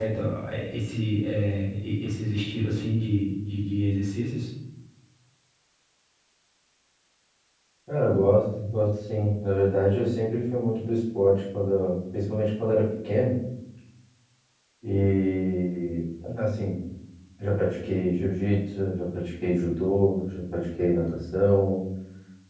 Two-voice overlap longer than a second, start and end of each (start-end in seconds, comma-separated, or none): none